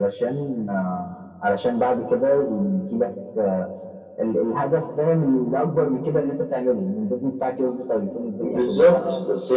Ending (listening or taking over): taking over